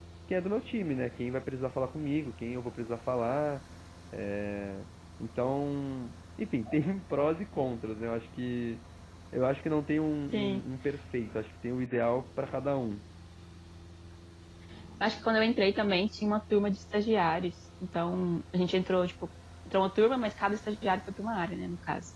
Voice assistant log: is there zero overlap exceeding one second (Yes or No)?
Yes